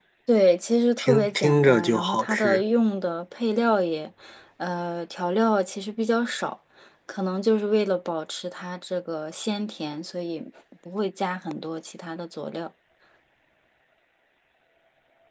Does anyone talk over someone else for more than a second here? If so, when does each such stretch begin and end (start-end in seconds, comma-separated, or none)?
1.0-2.6